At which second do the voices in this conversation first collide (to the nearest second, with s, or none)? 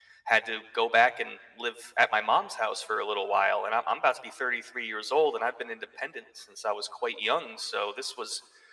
none